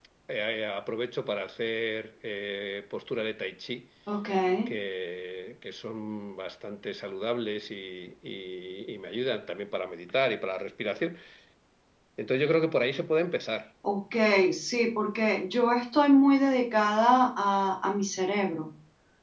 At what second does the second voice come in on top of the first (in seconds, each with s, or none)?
none